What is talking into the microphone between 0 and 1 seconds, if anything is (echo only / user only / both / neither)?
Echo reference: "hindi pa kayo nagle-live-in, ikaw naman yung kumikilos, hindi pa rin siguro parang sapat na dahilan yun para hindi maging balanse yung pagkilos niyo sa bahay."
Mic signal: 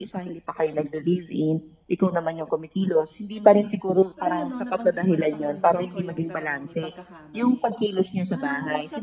echo only